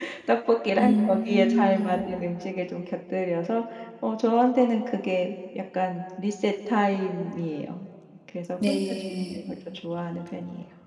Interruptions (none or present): present